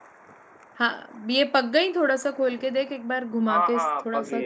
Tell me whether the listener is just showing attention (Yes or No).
No